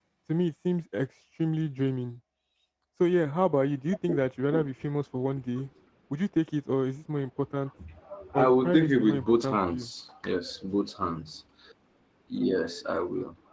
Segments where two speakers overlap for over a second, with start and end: 8.3-9.9

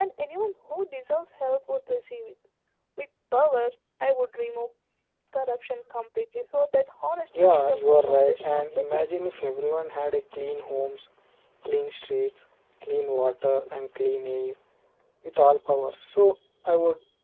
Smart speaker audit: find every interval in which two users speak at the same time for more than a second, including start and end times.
7.4-9.2

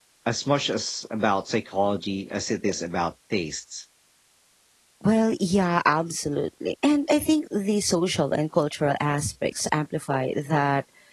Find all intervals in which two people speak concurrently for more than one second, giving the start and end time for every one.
none

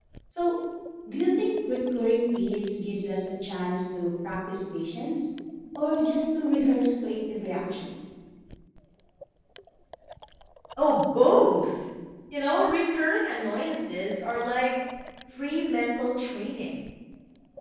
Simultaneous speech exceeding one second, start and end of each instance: none

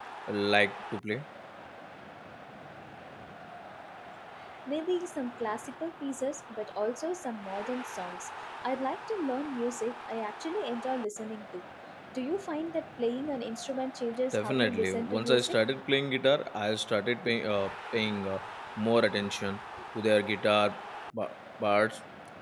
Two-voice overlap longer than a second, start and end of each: 14.3-15.6

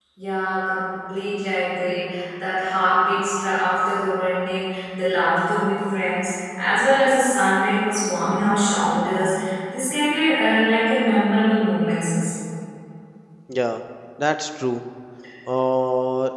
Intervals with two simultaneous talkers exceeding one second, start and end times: none

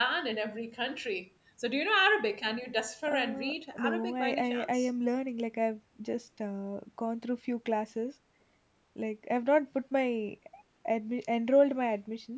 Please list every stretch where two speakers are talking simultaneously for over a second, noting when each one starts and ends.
3.1-4.9

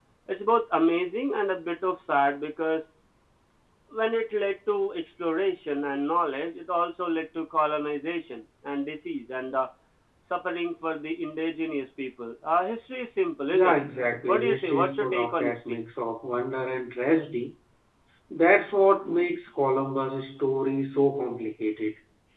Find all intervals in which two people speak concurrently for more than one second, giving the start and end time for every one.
14.3-15.8

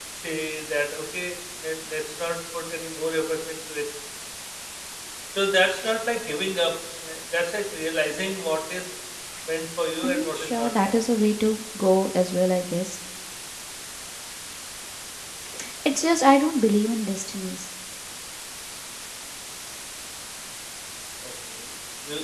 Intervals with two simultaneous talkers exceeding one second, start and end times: 10.0-11.3

